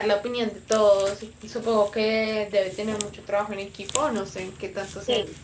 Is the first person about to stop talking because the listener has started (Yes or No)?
Yes